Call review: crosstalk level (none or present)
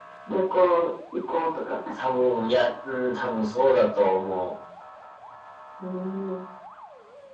none